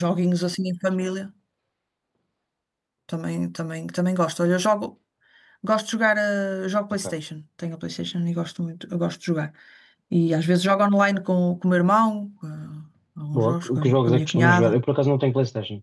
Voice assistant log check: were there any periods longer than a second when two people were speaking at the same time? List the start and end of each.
13.4-14.8

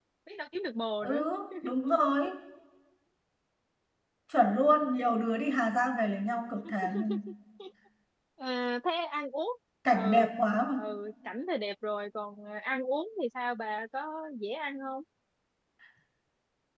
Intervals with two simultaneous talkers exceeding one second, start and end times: none

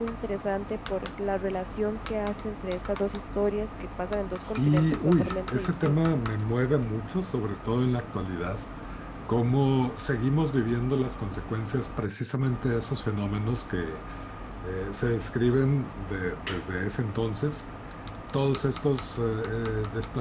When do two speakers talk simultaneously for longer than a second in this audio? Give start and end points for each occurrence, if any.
4.4-6.0

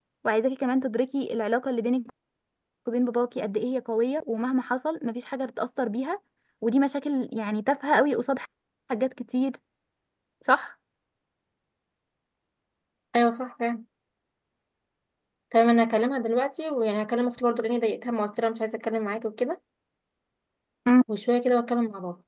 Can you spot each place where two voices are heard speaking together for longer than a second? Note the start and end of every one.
none

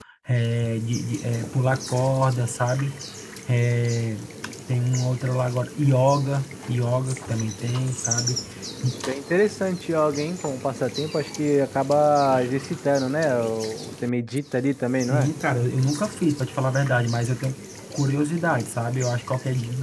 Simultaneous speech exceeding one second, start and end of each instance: none

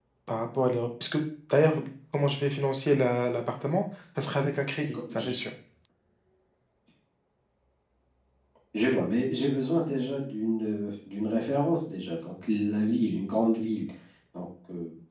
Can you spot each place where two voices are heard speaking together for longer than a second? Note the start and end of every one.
none

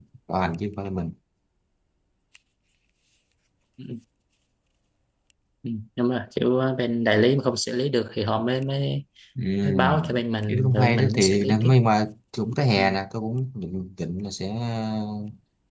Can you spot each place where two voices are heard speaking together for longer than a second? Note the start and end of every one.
10.5-11.7

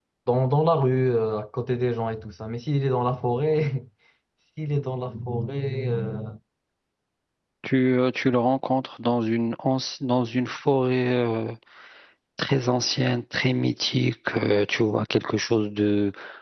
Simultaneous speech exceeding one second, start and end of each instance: none

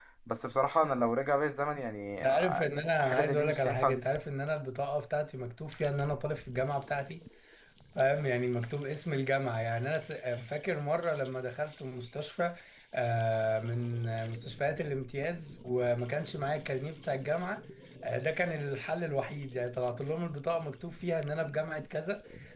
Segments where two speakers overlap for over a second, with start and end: 2.2-4.0

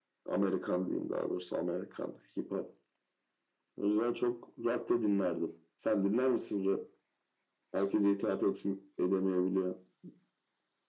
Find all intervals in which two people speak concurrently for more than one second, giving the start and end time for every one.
none

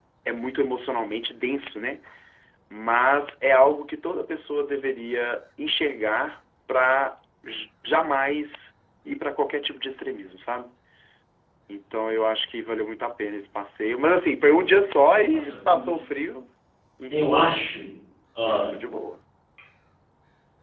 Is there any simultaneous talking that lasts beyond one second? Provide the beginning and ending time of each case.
none

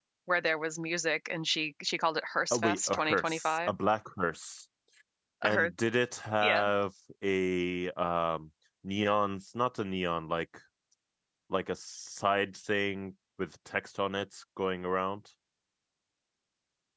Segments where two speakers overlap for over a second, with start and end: 2.5-3.7

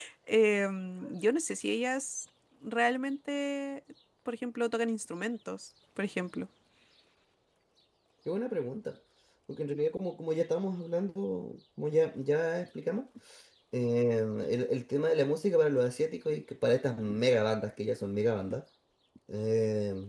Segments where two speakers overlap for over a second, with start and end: none

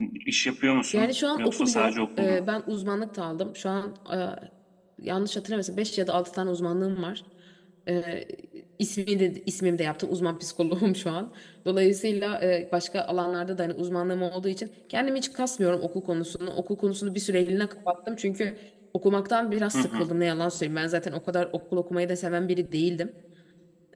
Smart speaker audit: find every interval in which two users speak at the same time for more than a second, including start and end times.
0.9-2.4

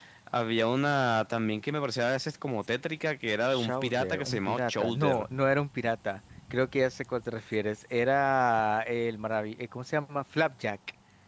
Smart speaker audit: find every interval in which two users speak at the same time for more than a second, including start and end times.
3.5-5.3

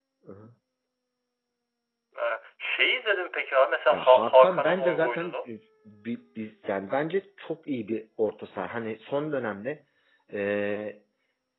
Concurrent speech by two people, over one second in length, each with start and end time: 3.9-5.3

